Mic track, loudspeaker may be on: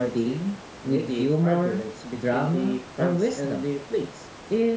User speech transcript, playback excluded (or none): none